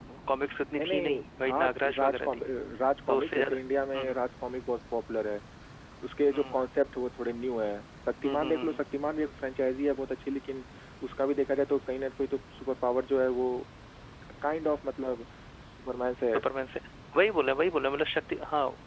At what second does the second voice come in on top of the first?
0.8 s

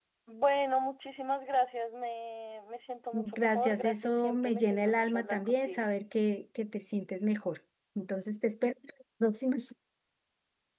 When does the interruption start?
3.1 s

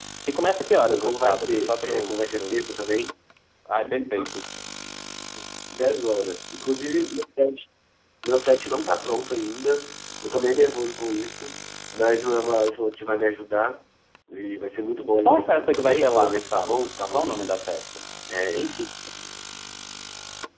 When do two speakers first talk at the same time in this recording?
0.7 s

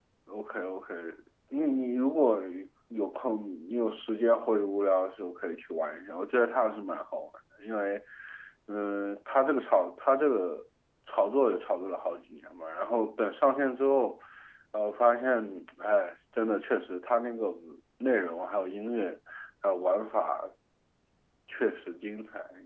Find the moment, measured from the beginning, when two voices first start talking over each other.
none

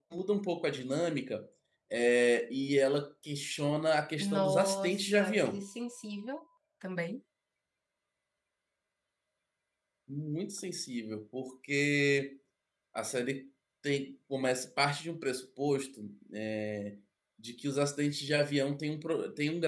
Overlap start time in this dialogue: 4.2 s

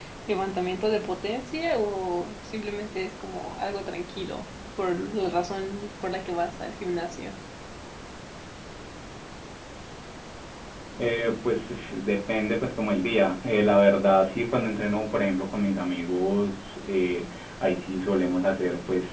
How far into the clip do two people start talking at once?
none

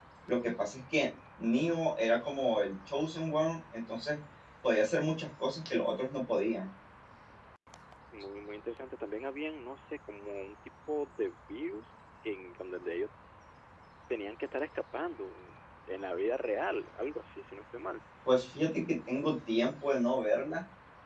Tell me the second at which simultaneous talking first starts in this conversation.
none

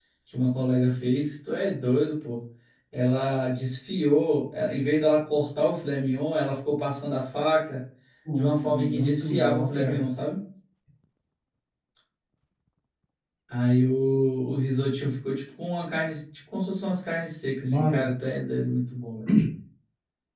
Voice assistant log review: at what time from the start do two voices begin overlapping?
8.4 s

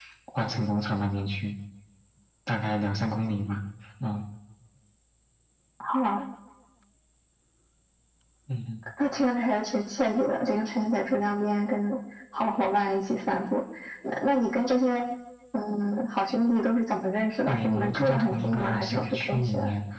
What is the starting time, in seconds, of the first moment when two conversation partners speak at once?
17.5 s

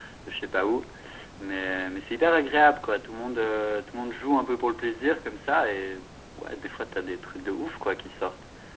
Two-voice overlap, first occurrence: none

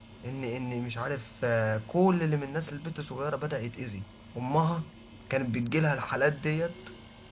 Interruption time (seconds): none

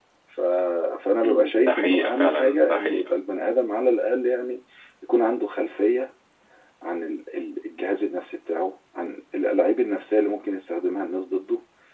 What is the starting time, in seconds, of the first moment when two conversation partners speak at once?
1.2 s

